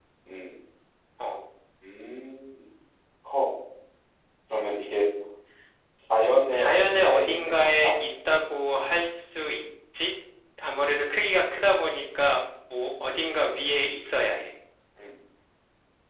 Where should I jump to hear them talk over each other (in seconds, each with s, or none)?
6.5 s